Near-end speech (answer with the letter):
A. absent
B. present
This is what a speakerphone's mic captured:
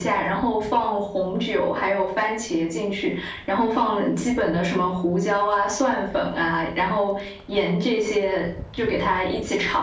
A